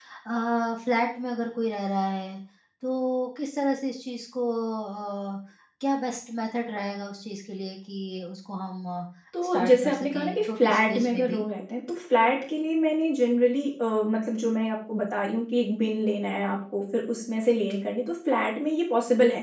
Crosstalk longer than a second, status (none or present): present